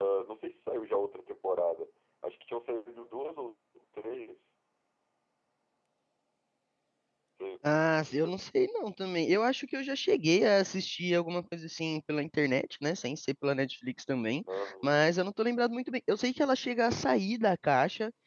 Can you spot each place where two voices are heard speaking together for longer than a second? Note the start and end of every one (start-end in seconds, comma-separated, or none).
none